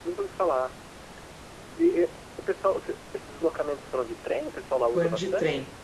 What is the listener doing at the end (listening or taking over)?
taking over